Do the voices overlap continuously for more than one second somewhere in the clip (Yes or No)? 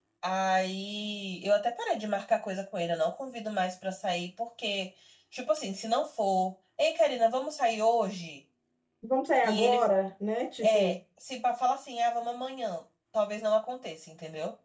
No